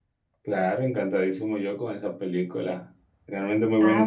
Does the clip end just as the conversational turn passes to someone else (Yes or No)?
Yes